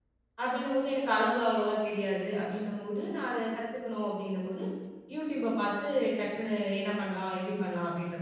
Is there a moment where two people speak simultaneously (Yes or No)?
No